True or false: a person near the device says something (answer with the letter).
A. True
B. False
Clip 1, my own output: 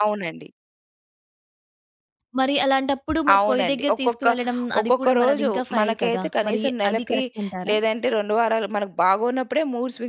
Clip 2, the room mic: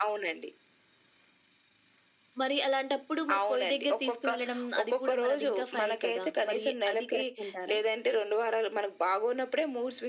B